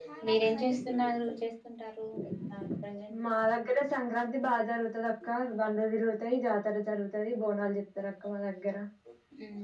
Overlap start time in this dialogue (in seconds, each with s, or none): none